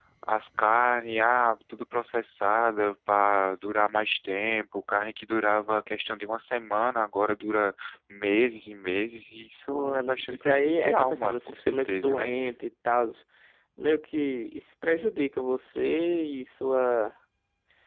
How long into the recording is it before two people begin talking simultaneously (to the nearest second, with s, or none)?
10 s